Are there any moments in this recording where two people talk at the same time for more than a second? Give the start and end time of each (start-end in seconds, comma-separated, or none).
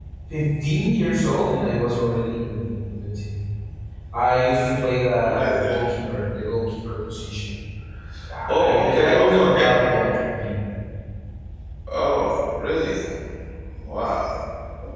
8.5-9.8